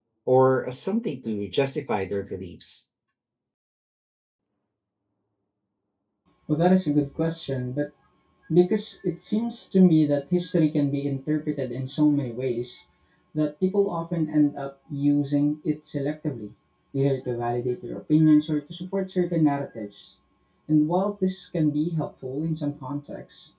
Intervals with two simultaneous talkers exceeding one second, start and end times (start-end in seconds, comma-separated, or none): none